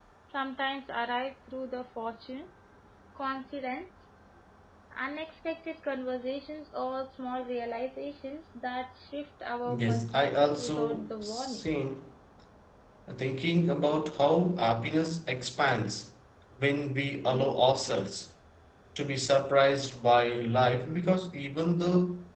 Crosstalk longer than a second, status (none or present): present